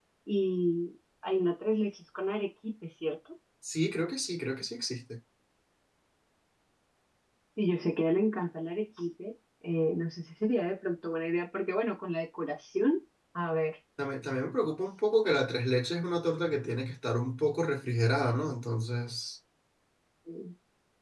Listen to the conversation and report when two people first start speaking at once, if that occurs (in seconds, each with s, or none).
none